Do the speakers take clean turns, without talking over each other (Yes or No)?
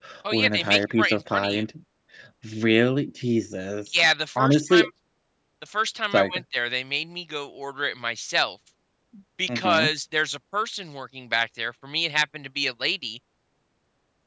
No